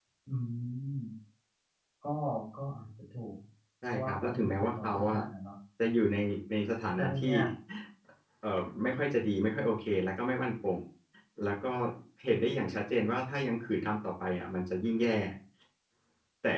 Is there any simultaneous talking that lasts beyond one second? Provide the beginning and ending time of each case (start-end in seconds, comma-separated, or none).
3.9-5.2